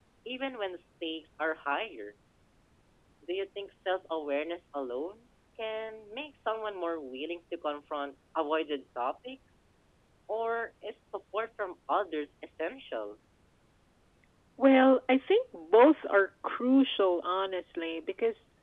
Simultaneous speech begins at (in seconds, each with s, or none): none